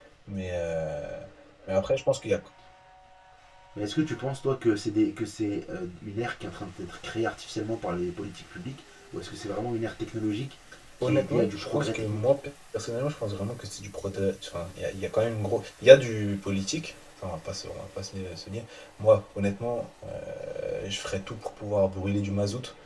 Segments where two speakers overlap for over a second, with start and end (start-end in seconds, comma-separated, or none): 11.0-12.3